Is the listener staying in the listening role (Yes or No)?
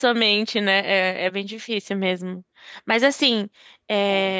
Yes